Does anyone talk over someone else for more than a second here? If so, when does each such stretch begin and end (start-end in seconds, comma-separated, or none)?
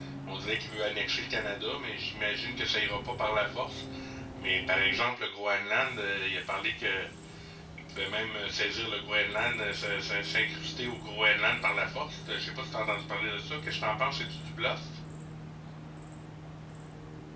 none